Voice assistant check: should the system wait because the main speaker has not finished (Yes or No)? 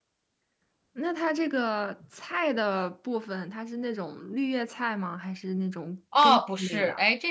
No